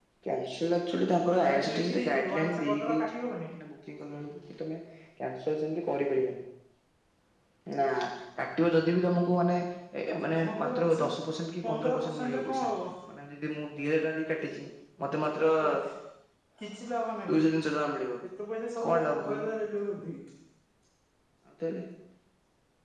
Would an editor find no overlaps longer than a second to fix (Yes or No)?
No